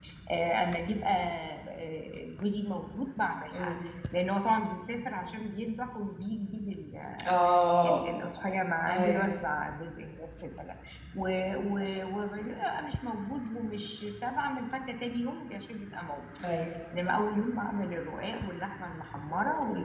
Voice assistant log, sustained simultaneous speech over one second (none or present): none